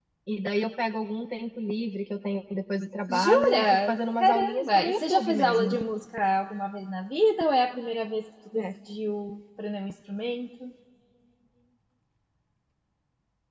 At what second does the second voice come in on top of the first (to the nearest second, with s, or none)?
3 s